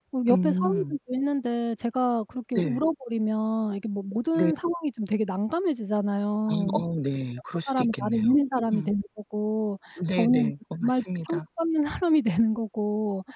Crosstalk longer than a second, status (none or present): present